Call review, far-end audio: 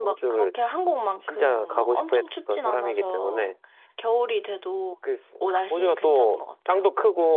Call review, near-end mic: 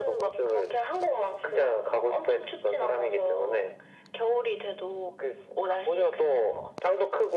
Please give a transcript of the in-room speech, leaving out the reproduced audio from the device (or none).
none